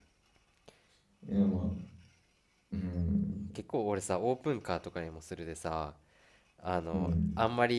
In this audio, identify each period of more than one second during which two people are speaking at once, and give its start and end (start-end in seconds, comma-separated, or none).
none